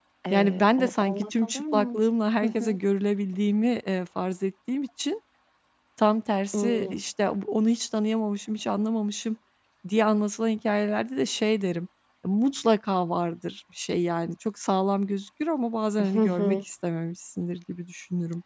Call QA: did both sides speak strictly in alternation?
No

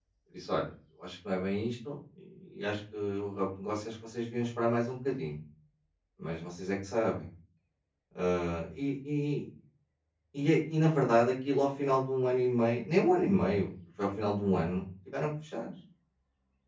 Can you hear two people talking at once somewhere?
No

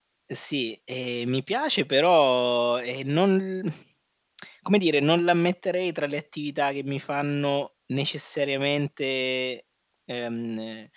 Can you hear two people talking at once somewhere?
No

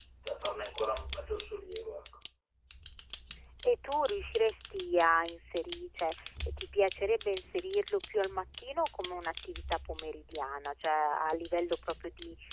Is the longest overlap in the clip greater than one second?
No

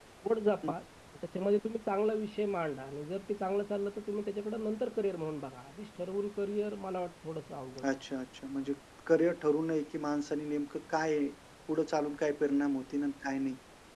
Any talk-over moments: No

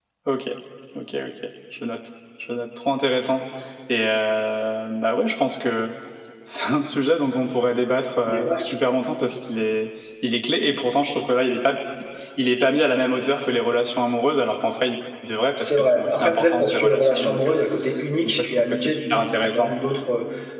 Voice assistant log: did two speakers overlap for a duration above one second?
Yes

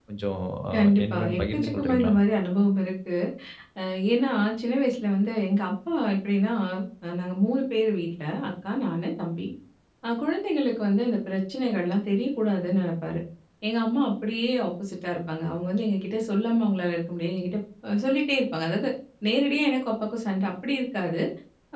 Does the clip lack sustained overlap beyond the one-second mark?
No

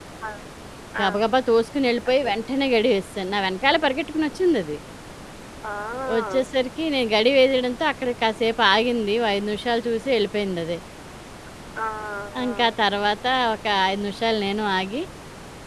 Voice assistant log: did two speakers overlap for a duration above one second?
No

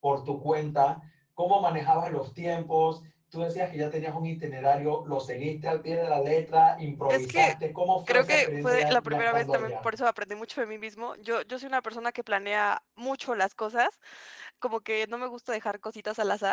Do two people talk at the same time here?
Yes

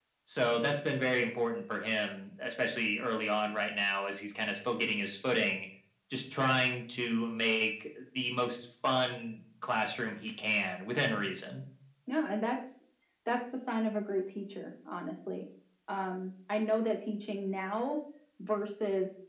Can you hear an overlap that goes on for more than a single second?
No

